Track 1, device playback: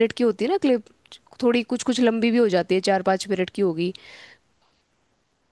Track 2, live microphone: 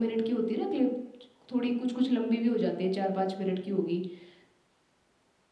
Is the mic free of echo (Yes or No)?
No